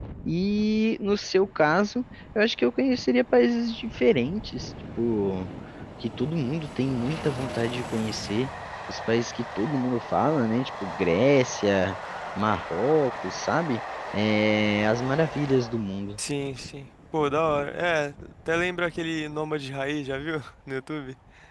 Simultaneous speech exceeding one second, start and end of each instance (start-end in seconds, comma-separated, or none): none